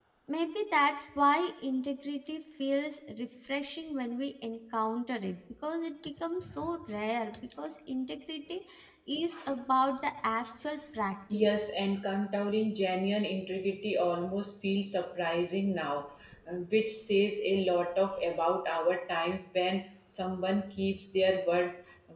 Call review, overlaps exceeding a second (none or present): none